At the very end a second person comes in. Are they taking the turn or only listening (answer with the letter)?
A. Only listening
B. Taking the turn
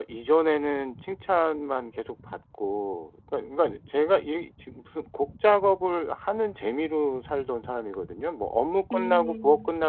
A